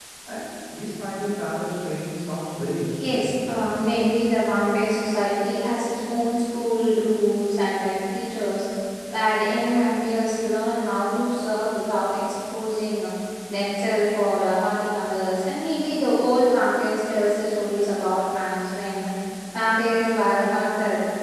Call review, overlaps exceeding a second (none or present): none